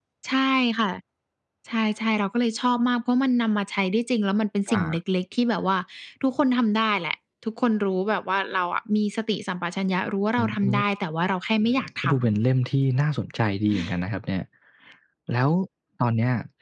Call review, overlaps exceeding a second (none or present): none